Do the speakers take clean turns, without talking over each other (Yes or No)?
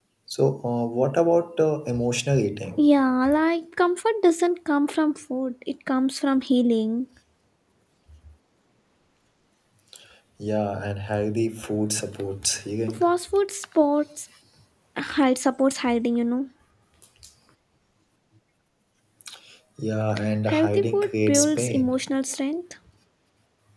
No